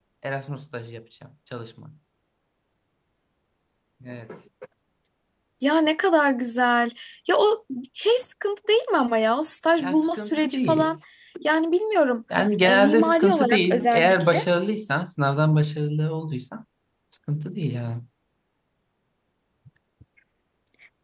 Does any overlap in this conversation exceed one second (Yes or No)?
Yes